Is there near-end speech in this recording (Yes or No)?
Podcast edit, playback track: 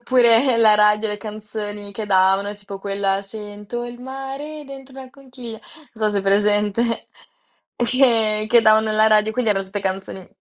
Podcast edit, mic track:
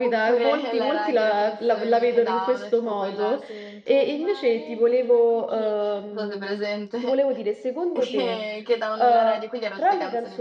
Yes